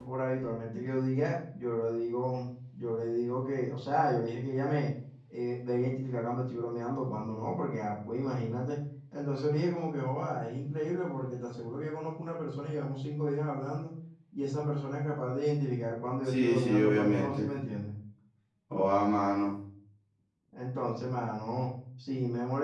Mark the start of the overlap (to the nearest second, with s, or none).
16 s